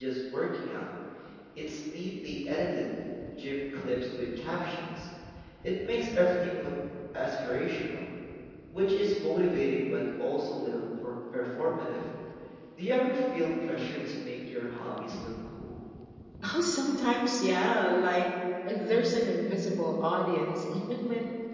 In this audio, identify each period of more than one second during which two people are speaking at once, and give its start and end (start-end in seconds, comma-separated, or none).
none